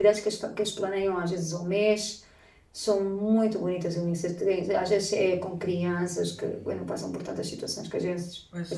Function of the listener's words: taking over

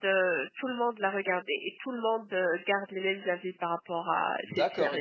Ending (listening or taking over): taking over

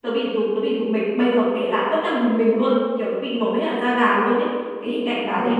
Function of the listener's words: listening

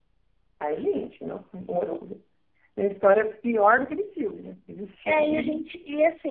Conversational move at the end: taking over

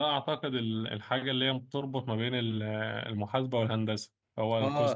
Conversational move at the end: taking over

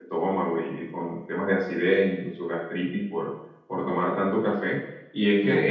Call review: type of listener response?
listening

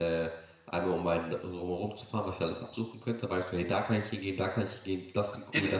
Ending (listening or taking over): taking over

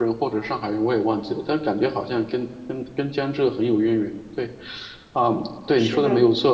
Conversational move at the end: listening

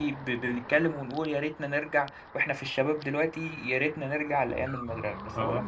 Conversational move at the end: listening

